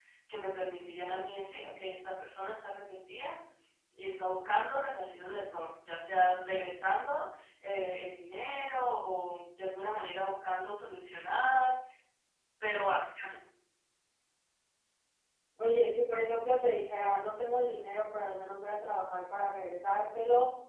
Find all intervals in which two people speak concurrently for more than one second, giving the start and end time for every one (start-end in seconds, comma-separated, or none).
none